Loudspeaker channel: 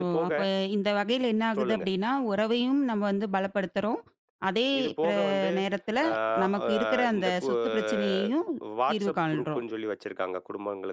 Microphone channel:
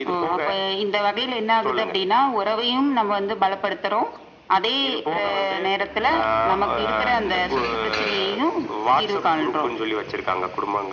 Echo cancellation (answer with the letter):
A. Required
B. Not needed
A